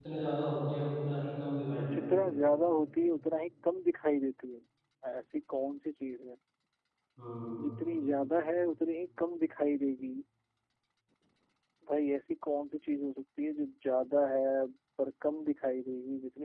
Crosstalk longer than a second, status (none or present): none